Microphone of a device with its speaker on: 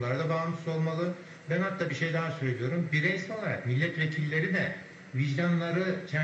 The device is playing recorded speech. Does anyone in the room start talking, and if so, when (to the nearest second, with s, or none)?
none